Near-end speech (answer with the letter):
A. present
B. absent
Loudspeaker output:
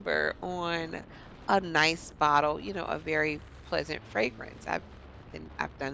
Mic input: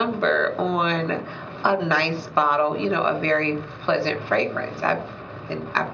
B